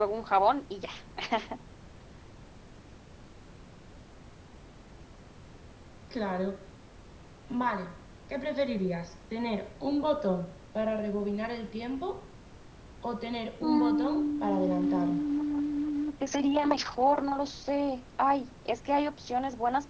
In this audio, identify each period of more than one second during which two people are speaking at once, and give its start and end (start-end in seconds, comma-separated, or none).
13.6-15.2